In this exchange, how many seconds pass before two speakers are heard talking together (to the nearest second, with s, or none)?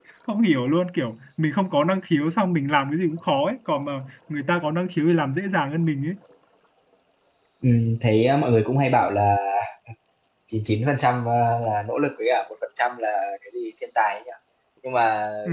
none